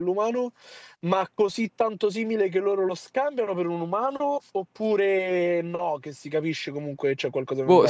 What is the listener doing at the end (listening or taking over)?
taking over